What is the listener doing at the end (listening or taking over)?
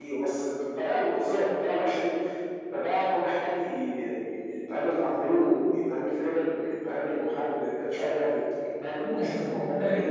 taking over